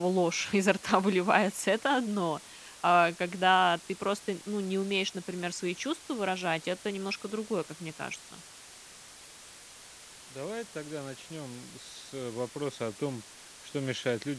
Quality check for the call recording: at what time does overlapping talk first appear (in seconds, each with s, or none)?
none